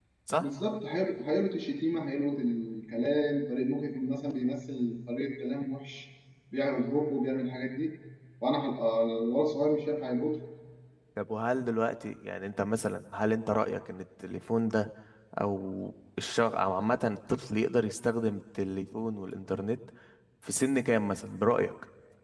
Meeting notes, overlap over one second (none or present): none